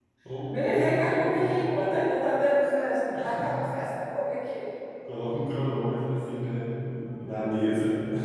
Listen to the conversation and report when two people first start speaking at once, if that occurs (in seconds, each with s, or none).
0.7 s